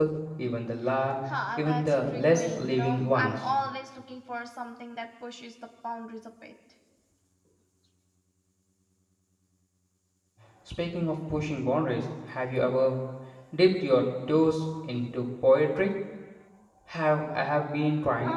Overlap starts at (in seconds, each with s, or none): 1.6 s